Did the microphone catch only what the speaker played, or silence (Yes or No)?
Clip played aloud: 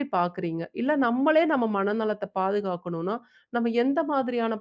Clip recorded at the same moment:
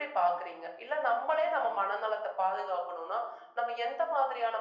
Yes